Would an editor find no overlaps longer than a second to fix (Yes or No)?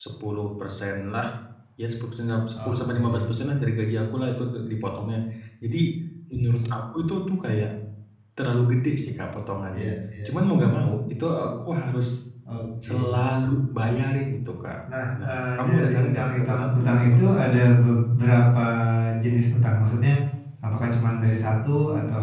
No